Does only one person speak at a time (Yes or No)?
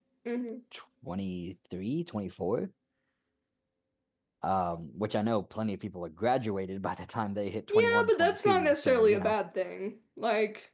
No